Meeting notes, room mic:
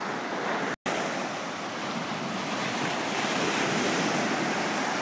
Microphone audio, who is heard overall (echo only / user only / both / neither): neither